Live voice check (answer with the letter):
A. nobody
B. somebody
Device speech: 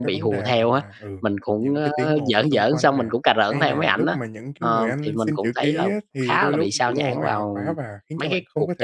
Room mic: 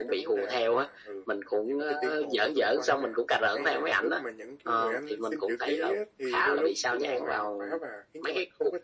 A